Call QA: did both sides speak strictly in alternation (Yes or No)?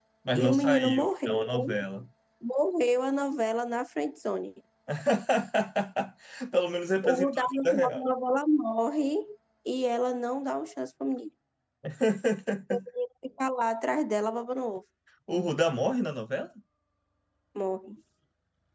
No